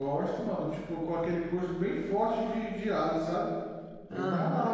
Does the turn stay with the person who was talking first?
No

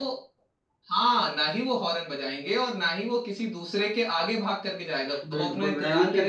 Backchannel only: No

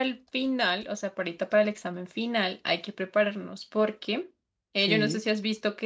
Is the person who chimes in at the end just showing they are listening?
Yes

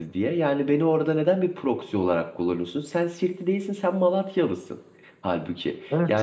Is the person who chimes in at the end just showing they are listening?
No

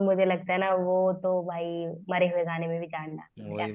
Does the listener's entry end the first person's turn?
Yes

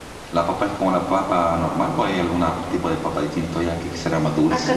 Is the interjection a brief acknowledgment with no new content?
No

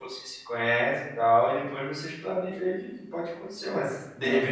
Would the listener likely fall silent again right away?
Yes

